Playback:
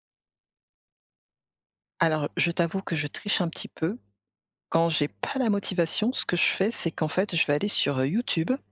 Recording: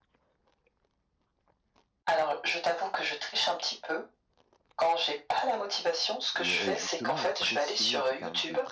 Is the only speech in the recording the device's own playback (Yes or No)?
No